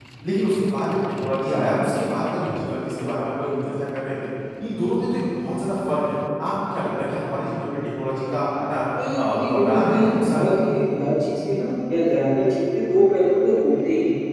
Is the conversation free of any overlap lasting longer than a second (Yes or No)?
No